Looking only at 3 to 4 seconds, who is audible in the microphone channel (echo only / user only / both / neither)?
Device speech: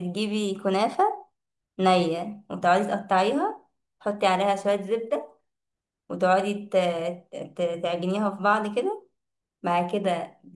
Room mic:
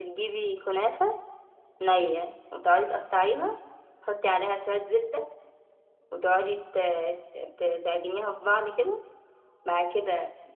echo only